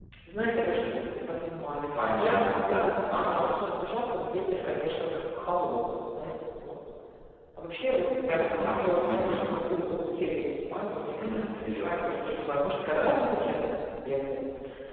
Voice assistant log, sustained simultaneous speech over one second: present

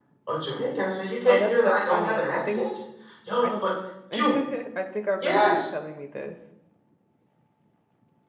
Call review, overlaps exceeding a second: present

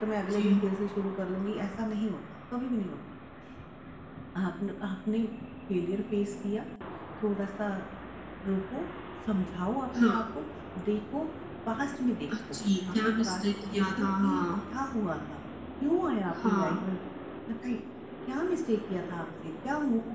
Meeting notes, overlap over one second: present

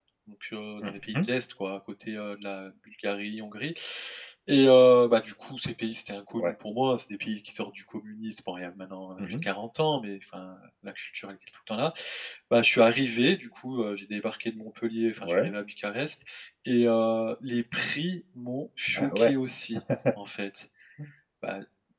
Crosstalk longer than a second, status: none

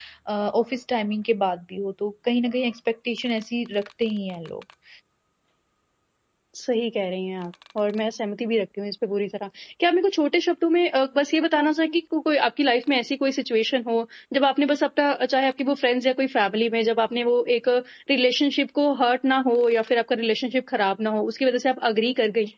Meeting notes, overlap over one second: none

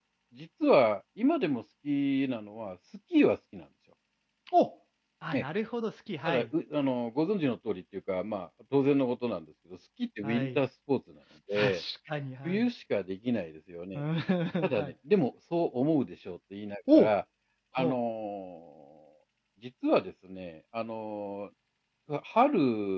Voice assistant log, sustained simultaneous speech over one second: none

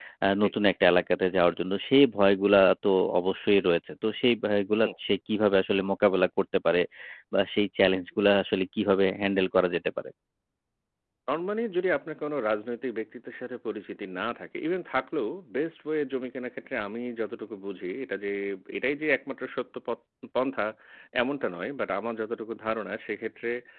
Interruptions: none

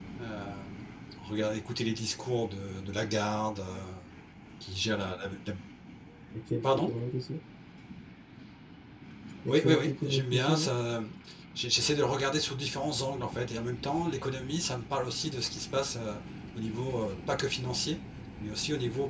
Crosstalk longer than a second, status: present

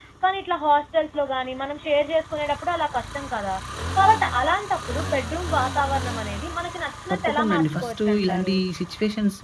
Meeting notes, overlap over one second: present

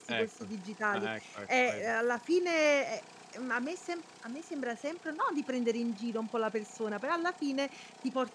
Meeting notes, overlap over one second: none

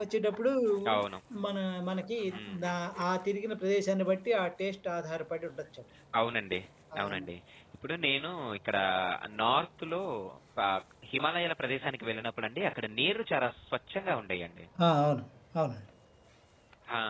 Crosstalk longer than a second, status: none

